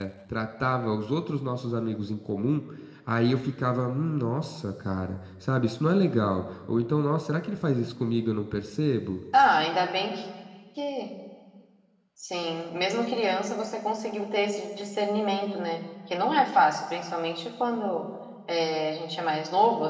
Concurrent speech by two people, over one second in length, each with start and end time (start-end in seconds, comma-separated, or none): none